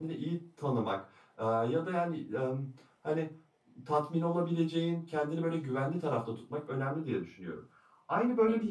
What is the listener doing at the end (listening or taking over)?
taking over